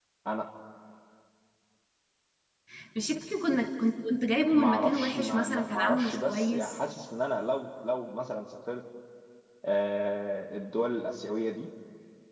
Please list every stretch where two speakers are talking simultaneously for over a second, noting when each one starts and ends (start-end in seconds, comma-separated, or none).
4.5-6.8